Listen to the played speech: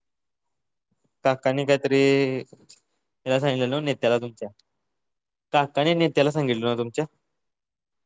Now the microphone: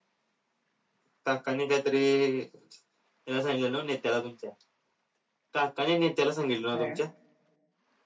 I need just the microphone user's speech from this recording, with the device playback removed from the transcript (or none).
असं आहे का?